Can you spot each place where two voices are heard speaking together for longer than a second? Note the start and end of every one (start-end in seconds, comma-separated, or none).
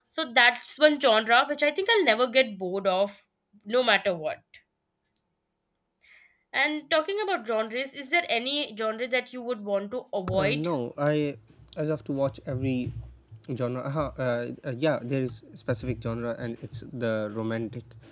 none